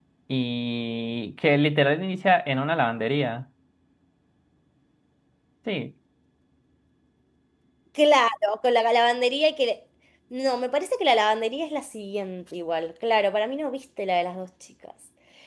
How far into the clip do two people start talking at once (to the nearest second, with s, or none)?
none